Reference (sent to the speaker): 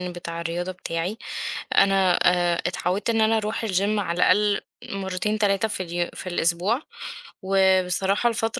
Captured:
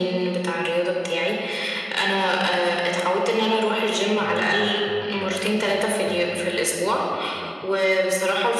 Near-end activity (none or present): present